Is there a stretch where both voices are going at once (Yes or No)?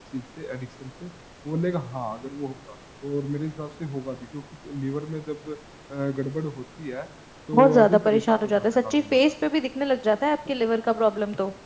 Yes